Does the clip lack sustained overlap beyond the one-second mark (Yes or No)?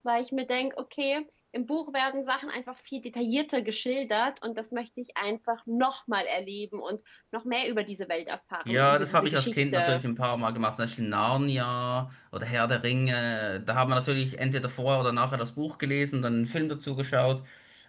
No